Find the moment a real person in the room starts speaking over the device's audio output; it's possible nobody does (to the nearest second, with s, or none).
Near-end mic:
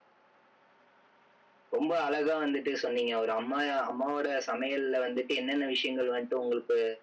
2 s